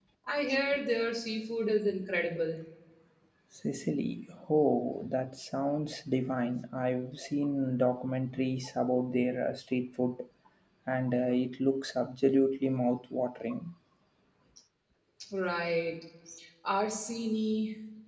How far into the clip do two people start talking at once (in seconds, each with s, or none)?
none